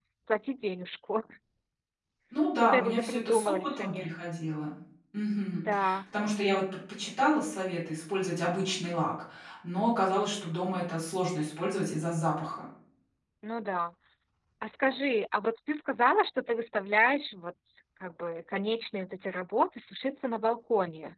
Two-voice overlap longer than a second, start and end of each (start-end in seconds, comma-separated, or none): 2.6-4.1